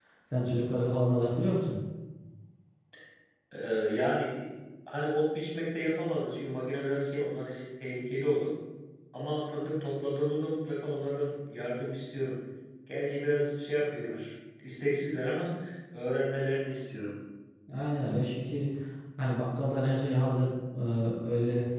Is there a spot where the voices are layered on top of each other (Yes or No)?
No